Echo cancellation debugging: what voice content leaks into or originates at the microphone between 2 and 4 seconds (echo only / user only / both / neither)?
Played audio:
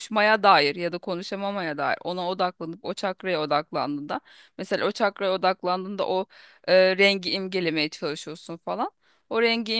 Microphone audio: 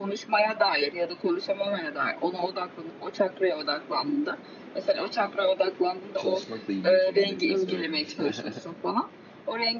echo only